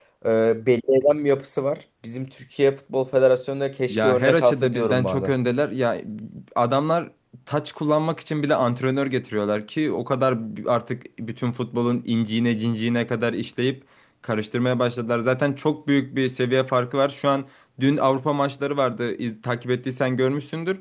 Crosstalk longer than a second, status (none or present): present